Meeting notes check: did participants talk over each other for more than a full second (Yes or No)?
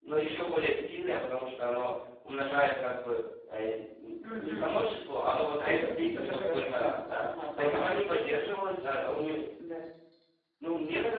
Yes